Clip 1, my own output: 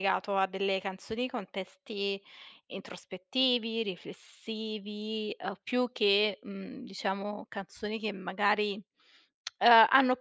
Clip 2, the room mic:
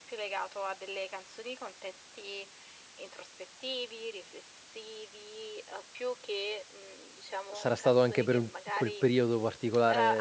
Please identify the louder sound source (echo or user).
user